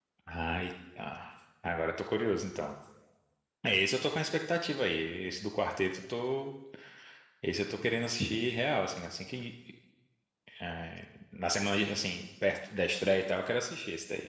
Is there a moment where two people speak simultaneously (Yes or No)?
No